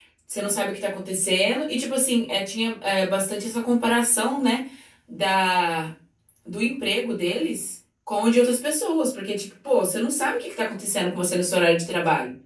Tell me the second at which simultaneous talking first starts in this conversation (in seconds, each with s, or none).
none